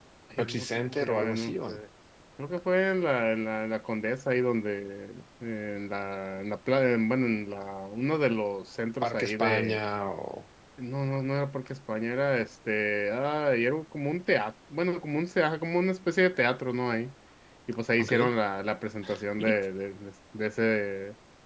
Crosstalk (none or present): present